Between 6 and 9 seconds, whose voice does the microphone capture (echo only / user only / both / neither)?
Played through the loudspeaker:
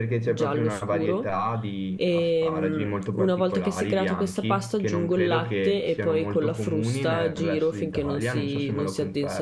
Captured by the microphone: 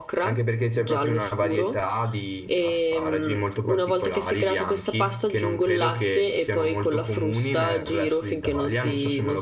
echo only